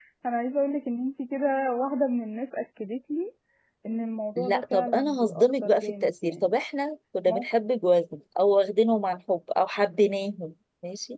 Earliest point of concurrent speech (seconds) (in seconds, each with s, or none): 4.4 s